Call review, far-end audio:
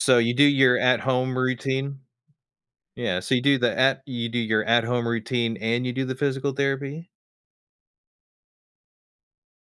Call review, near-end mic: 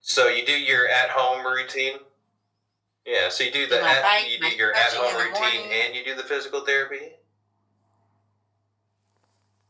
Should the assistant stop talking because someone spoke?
Yes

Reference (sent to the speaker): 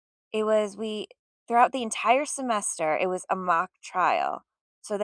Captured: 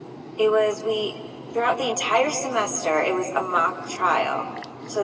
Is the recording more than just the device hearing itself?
No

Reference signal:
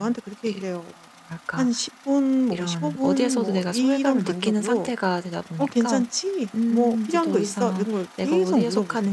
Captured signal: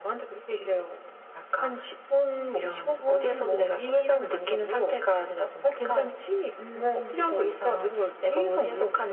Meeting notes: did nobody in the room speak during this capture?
Yes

